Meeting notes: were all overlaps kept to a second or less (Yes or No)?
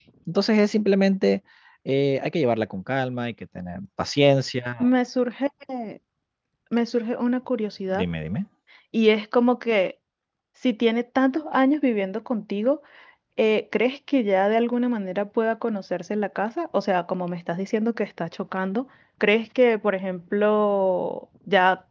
Yes